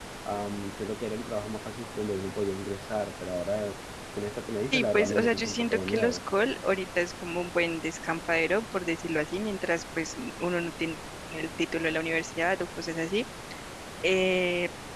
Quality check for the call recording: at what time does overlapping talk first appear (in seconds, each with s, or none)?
4.7 s